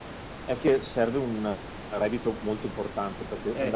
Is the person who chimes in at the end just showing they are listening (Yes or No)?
Yes